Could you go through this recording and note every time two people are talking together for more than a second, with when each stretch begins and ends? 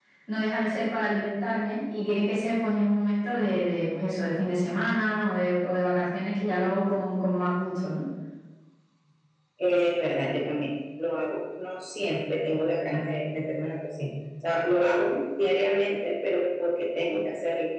none

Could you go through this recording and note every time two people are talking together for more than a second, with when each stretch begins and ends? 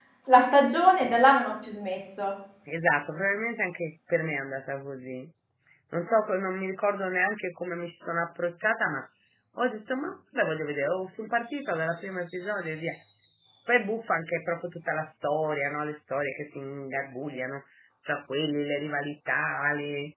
none

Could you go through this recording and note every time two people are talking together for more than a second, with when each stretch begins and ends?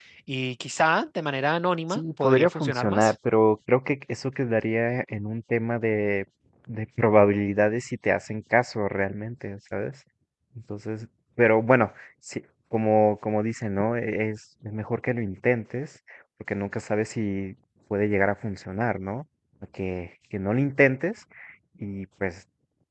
1.9-3.1

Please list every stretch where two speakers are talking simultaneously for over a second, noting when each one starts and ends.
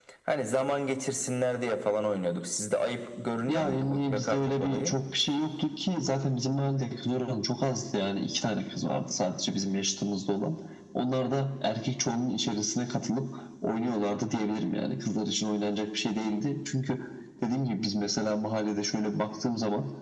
3.5-5.0

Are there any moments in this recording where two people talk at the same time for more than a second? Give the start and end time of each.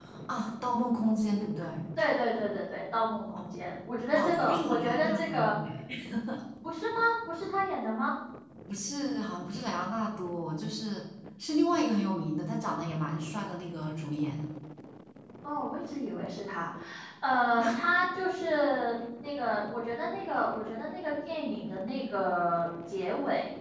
4.2-5.5

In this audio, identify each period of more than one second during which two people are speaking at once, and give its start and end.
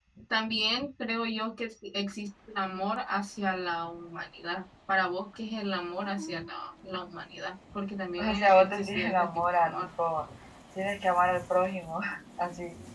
8.2-9.9

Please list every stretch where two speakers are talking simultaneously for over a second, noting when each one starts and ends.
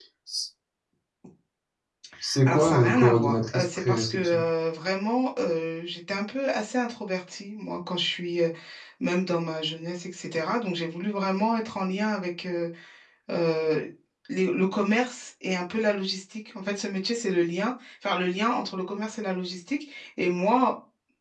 2.5-4.4

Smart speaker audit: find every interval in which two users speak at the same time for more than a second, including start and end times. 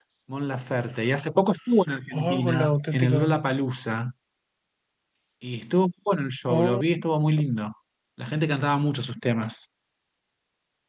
2.1-3.3

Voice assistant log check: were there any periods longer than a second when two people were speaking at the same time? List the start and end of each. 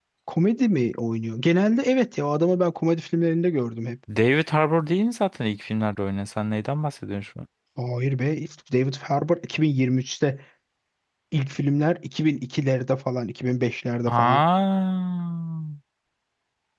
none

